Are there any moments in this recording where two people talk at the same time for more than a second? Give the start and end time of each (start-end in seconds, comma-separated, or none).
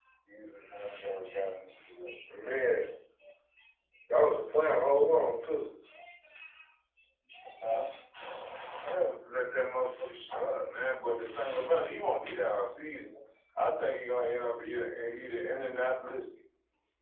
none